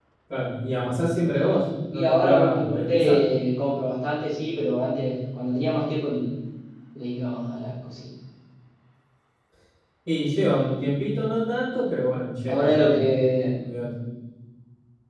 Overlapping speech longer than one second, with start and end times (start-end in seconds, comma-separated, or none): 1.9-3.2